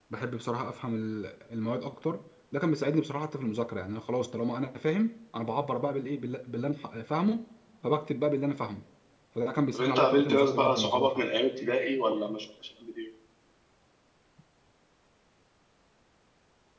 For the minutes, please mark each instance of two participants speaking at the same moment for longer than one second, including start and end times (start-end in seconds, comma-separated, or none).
9.7-11.2